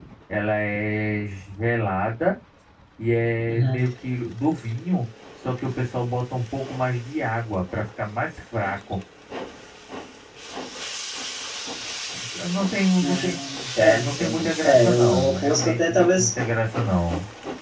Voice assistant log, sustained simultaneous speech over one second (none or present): present